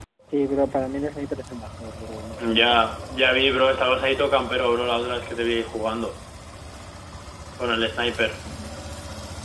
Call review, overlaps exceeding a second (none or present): none